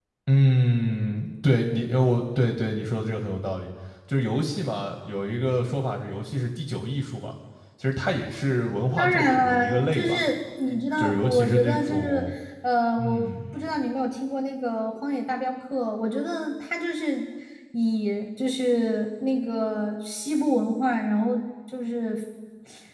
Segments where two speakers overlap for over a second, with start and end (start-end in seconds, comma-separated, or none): 9.0-10.2, 11.0-12.2